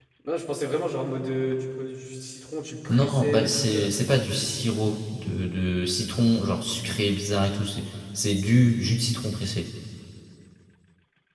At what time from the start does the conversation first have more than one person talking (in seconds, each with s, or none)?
2.9 s